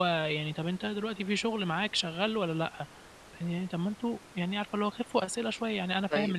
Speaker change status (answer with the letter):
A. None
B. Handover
A